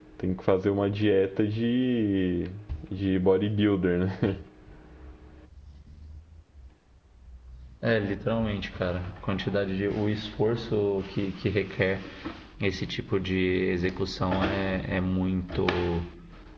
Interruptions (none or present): none